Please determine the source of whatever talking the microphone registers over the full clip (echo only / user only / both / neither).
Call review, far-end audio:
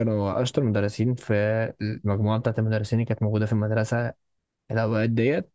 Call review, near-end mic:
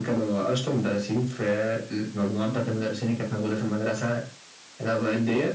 both